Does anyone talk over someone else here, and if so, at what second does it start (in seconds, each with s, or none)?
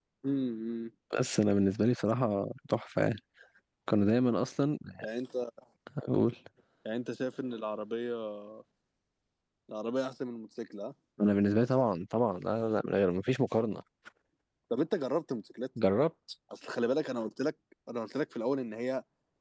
none